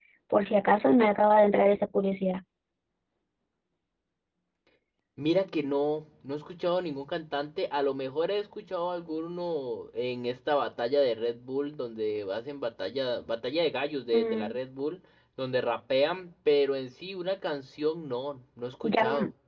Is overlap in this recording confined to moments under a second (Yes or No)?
Yes